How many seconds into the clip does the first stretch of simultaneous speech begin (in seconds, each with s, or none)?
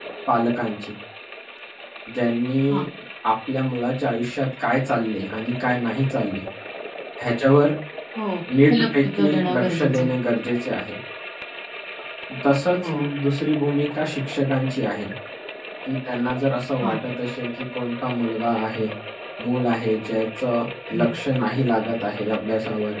8.7 s